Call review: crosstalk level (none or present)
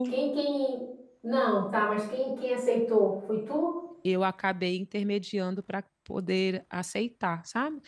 none